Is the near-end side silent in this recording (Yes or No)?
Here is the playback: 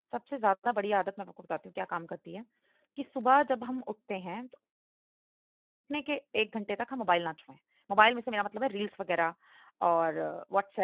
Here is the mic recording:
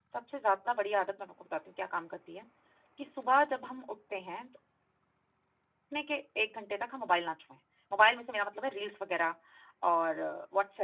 Yes